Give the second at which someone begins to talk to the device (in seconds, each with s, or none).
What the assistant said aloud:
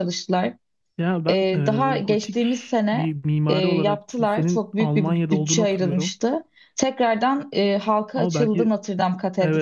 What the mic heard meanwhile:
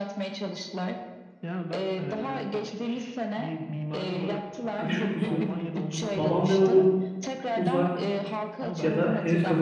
4.7 s